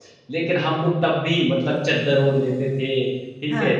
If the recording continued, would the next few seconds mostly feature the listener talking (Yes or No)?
No